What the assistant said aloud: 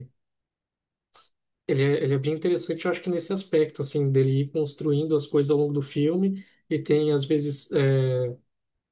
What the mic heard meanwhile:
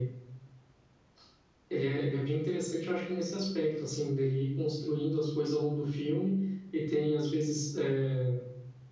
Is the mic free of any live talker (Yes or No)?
Yes